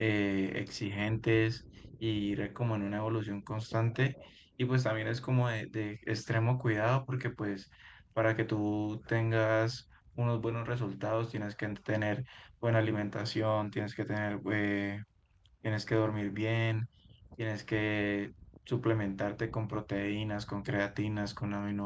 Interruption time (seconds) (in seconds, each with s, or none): none